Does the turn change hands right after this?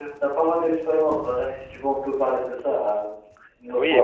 Yes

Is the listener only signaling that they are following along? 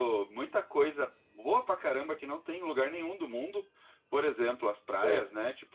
Yes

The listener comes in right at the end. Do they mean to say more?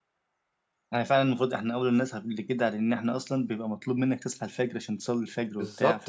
Yes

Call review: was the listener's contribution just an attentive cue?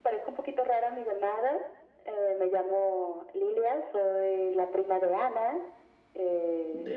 Yes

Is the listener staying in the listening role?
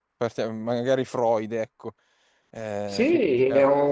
No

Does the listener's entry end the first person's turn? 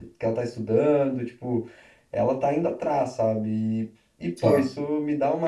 No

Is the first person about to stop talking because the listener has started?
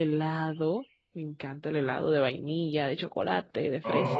Yes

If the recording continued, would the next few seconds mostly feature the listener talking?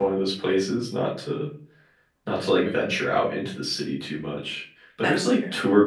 No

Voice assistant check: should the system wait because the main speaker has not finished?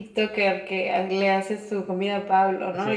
No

